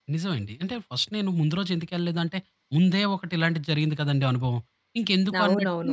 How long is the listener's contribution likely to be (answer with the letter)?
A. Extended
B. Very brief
A